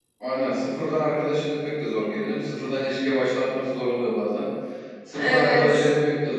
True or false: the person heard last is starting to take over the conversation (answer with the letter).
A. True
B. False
B